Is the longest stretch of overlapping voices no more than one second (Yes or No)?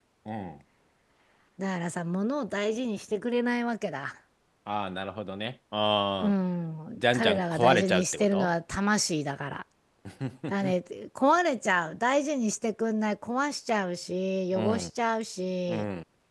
No